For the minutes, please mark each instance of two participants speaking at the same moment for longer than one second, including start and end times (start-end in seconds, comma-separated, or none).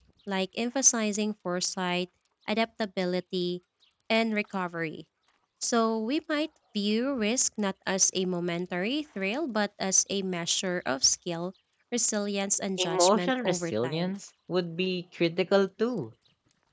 12.8-14.2